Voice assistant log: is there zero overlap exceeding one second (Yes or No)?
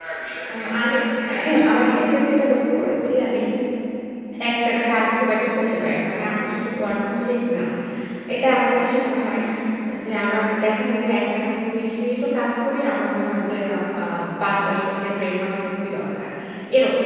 Yes